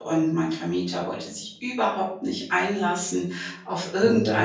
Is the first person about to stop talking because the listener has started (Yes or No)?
No